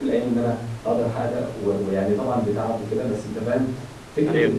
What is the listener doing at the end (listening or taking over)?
listening